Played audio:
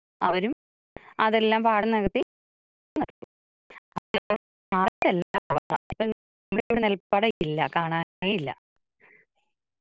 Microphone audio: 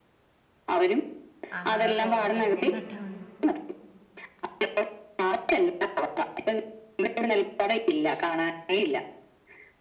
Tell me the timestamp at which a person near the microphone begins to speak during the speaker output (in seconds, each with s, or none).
1.6 s